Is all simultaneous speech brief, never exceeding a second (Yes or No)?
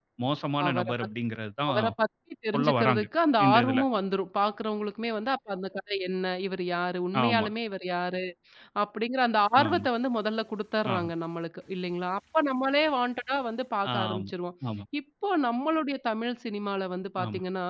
Yes